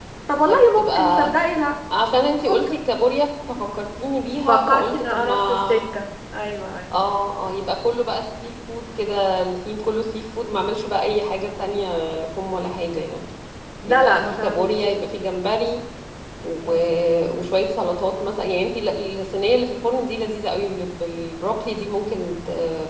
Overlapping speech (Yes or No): Yes